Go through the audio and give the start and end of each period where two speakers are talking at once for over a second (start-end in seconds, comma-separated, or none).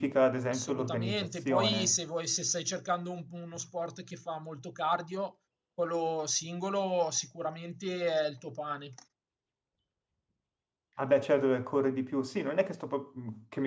0.5-2.0